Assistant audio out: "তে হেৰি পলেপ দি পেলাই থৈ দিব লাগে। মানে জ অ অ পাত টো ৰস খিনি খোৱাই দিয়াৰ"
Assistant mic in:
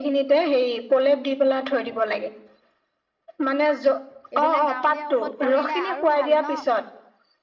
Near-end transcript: এইবিলাক গাঁৱলীয়া ঔষধ কৰিলে আৰু ভাল ন

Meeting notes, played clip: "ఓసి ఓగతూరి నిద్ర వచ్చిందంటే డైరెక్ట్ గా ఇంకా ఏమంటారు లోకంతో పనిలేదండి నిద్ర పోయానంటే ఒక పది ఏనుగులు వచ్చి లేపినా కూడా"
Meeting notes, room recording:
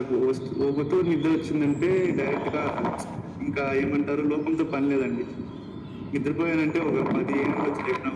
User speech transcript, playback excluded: none

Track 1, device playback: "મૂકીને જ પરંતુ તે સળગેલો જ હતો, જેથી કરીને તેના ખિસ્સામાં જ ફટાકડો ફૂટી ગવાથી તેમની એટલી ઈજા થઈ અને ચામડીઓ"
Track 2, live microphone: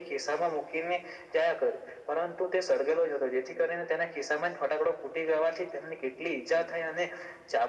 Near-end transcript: none

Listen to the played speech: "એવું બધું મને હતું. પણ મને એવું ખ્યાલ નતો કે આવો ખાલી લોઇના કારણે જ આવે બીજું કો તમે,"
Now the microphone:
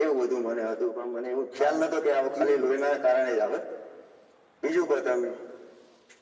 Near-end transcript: હા એજ ને

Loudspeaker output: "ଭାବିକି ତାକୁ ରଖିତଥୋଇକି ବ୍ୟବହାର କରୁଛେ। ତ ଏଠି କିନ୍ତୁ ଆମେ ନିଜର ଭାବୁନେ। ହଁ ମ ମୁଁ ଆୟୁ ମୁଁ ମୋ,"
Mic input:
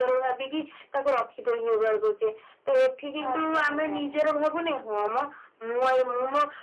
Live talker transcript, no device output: ଆଜ୍ଞା ଆଜ୍ଞା

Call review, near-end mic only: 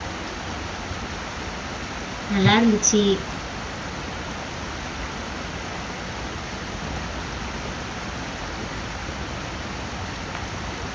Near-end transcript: நல்லா இருந்துச்சி

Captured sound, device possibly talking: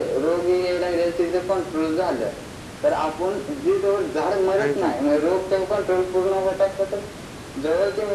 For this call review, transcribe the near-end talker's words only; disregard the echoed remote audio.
हो काय!

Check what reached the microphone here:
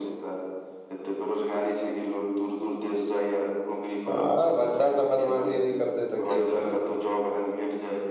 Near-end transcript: आ बच्चा सब बदमाशी नहि करते तऽ के करते

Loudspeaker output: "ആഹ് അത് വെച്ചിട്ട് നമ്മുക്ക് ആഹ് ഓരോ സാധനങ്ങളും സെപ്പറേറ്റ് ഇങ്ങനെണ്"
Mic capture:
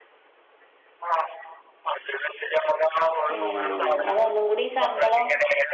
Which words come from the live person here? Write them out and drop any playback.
ഏഹ് അതൊന്നും കൂടി ശമ്പളം

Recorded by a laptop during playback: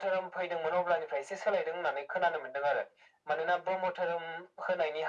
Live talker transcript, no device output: none

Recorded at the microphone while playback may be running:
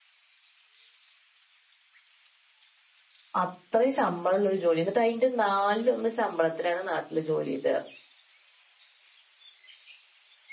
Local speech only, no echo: അത്രയും ശമ്പളള്ളൊരു ജോലി എന്നിട്ട് അതിന്റെ നാലിലൊന്ന് ശമ്പളത്തിലാണ് നാട്ടില് ജോലി ചെയ്ത്

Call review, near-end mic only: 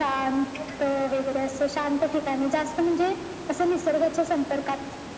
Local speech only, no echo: none

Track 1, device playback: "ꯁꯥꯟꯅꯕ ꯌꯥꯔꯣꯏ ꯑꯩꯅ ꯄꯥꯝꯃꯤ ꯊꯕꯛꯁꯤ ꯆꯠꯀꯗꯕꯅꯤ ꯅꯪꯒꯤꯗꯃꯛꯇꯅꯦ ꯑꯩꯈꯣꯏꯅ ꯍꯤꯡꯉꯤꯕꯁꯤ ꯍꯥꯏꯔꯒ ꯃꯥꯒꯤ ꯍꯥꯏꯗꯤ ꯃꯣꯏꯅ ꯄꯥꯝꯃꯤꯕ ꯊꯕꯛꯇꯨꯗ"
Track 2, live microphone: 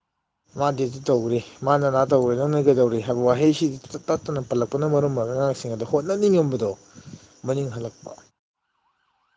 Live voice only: ꯃꯥꯗꯤ ꯑꯗꯨ ꯇꯧꯔꯤ ꯃꯥꯅ ꯅꯥ ꯇꯧ꯭ꯔꯦ ꯅꯪꯅ ꯀꯩꯗꯧꯔꯤ ꯍꯥꯏꯕ ꯋꯥꯍꯩꯁꯤꯗꯤ ꯇꯠꯇꯅ ꯄꯜꯂꯛꯄꯅ ꯃꯔꯝ ꯑꯣꯏꯔꯒ ꯁꯤꯡ ꯑꯗ ꯍꯣꯠꯅꯅꯤꯡꯉꯝꯕꯗꯣ ꯃꯅꯤꯡ ꯍꯜꯂꯛꯄ

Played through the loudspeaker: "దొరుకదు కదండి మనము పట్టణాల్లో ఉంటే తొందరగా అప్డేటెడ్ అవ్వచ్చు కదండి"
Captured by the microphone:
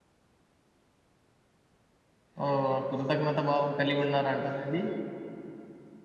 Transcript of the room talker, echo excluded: ఓ అ కృతజ్ఞత భావం కలిగి ఉన్నారంట అండి

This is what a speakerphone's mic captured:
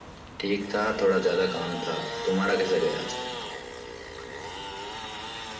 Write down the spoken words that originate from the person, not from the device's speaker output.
none

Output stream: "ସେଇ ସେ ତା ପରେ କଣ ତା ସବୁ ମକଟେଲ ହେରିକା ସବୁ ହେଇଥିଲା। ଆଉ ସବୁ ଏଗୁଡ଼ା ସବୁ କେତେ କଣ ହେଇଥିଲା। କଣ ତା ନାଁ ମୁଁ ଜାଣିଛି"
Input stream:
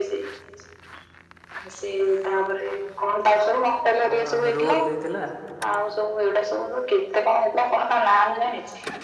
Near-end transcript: ହଁ ରୋଲ ଦେଇଥିଲା।

